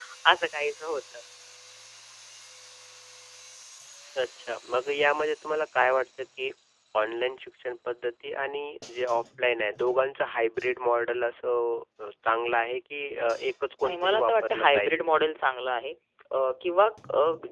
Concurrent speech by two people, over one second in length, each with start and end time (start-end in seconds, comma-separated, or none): 13.8-15.0